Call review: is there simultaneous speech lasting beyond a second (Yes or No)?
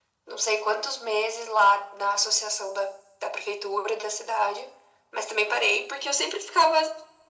No